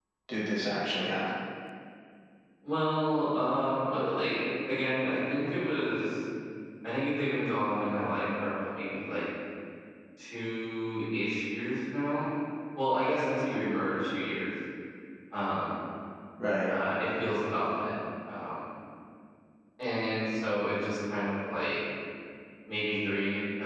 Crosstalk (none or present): none